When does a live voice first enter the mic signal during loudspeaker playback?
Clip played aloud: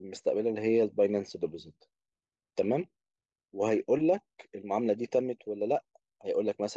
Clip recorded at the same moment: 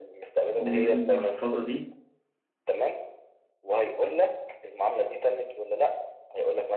0.5 s

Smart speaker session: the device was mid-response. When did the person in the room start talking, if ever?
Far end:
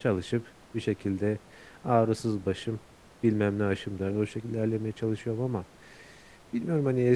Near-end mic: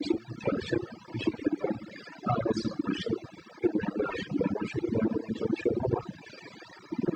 none

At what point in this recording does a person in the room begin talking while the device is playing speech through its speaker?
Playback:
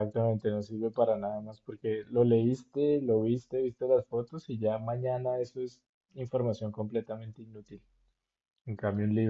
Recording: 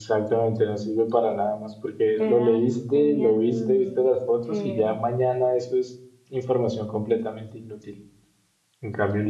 2.2 s

